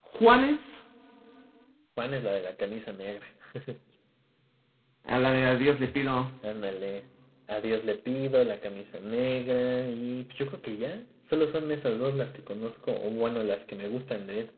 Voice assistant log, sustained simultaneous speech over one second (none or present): none